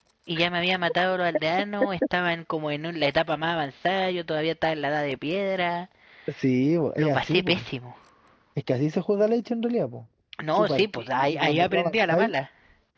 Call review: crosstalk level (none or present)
present